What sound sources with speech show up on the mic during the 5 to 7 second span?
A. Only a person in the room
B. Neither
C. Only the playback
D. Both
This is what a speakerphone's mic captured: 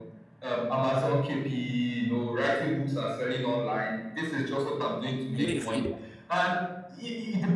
D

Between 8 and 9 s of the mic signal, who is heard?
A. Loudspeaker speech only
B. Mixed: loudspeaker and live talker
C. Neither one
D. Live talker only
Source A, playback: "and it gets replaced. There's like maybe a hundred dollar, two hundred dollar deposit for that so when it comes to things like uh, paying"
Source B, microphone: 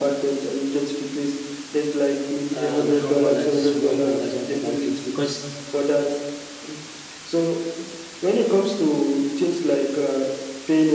A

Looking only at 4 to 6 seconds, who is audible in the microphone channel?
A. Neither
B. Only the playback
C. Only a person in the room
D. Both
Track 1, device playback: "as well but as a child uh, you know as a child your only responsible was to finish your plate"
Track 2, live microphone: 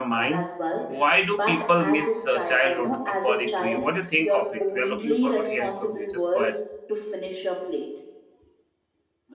D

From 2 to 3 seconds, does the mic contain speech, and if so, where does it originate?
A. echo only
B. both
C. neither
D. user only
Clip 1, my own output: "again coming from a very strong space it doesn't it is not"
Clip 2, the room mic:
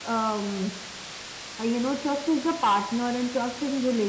D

